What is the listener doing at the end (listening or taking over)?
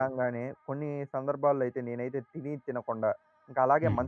listening